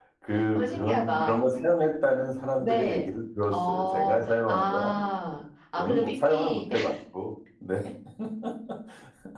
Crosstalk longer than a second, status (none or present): present